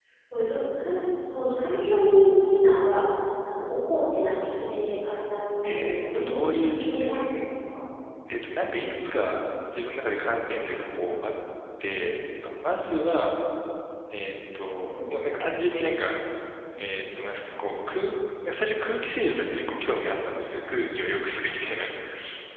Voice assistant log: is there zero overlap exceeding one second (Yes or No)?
No